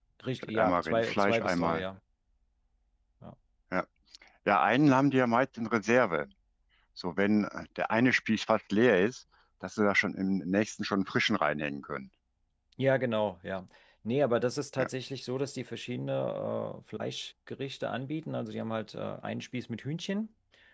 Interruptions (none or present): present